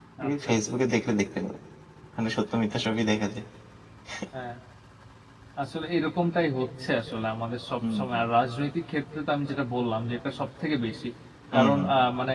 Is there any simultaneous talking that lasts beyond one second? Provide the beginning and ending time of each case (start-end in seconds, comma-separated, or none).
none